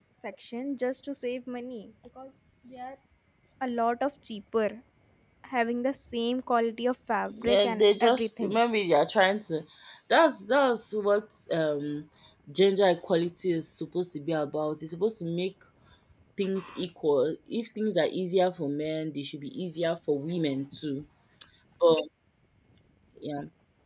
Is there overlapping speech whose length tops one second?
Yes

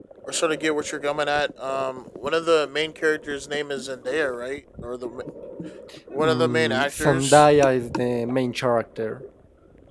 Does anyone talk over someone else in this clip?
Yes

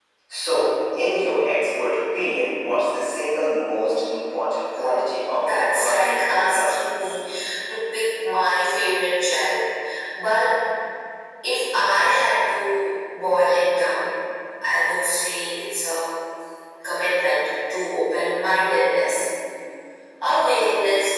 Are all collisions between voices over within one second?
No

